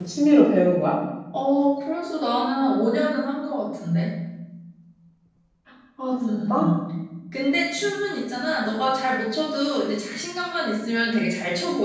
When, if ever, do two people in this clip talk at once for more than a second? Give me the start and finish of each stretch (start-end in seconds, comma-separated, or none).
none